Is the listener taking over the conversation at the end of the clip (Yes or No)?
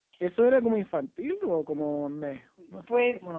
Yes